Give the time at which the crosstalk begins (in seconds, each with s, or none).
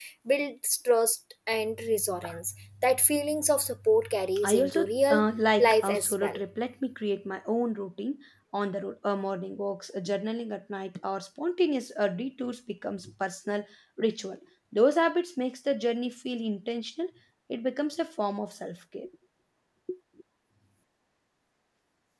4.4 s